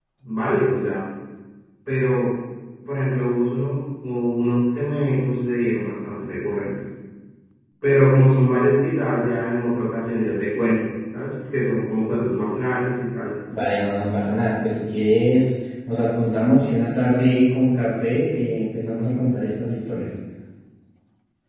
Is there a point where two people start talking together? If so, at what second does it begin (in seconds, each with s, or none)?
none